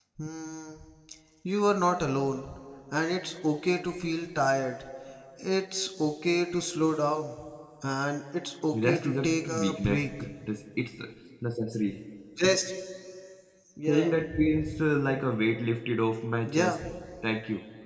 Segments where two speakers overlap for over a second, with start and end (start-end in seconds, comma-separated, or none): 8.7-10.1